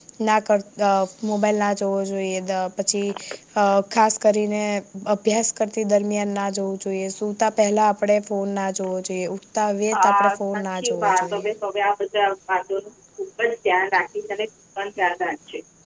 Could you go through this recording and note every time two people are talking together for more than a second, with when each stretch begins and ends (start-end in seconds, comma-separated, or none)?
9.9-11.5